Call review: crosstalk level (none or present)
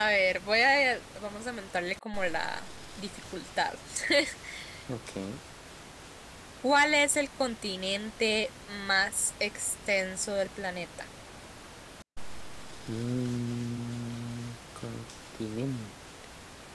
none